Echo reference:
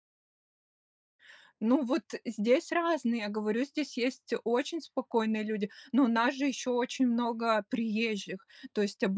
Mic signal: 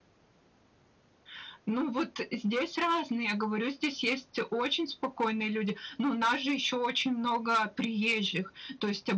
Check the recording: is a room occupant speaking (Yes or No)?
No